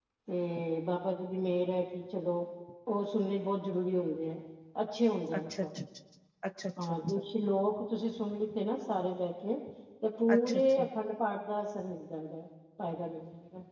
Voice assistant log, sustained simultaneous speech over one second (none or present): none